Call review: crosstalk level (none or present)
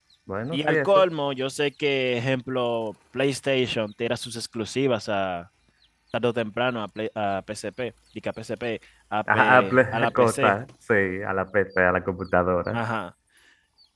present